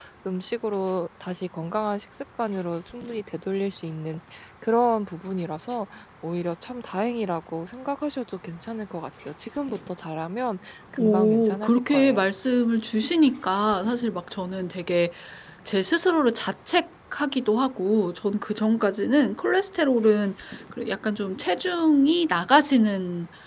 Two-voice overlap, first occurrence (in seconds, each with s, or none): 11.0 s